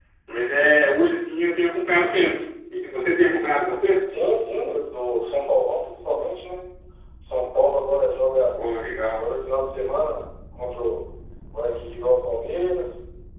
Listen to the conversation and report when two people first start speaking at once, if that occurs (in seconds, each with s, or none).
none